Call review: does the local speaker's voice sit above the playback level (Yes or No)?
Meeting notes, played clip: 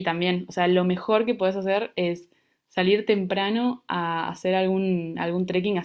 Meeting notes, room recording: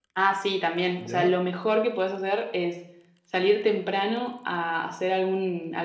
No